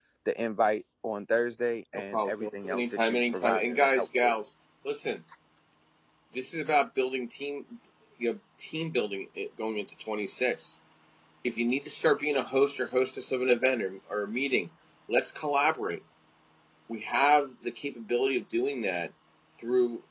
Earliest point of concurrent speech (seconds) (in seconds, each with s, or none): 1.9 s